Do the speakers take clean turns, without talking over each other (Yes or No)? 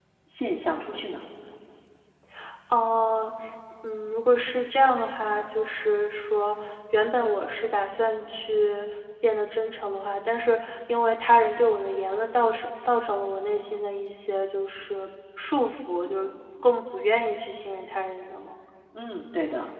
Yes